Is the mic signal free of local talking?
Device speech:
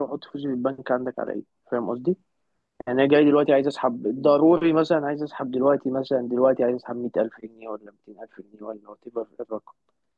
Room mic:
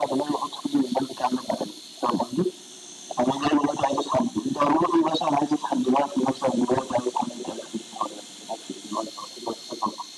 Yes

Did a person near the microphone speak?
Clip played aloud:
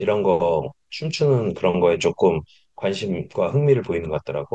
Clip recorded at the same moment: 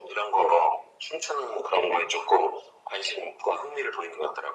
No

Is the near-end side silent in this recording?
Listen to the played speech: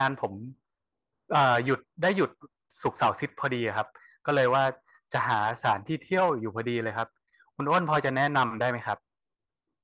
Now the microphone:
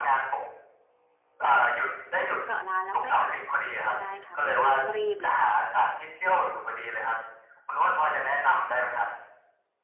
No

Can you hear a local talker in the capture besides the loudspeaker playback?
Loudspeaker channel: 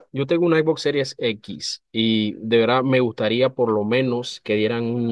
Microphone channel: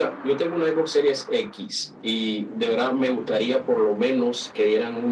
No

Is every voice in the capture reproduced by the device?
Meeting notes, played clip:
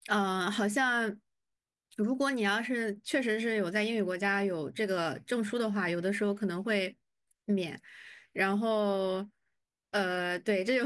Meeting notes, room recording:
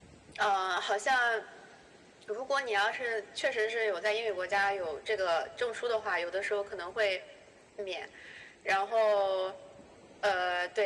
Yes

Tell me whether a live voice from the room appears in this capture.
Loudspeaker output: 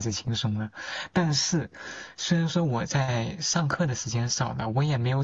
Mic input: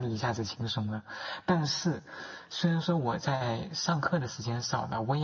No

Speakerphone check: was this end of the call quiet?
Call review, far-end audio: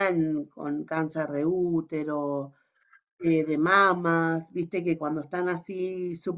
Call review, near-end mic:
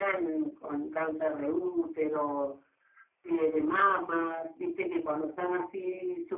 Yes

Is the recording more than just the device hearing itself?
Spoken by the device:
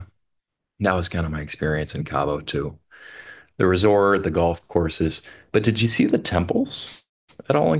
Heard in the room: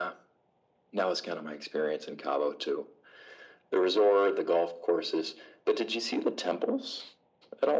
No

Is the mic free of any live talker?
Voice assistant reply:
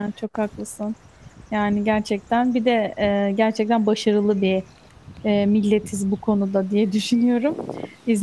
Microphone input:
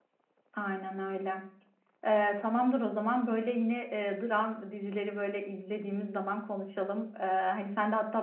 No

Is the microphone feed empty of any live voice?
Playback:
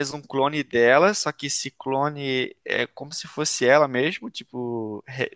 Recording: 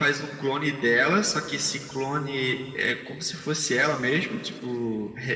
Yes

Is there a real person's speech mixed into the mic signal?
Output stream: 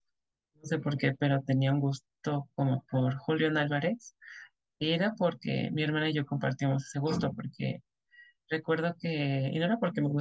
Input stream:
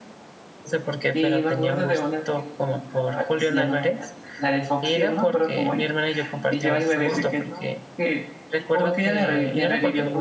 Yes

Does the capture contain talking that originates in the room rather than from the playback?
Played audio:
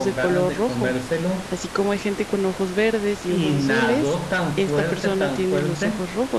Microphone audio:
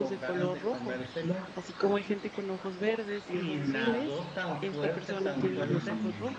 Yes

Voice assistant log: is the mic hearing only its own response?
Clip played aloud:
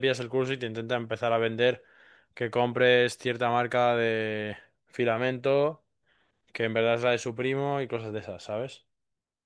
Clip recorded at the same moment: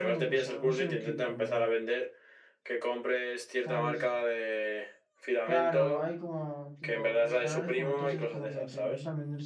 No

